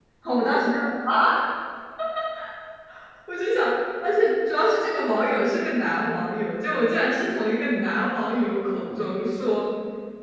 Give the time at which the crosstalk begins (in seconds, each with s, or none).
none